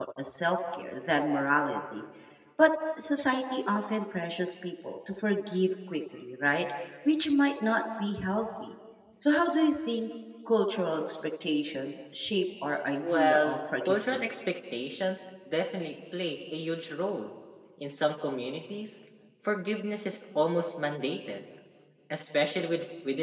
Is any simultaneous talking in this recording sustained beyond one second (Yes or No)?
Yes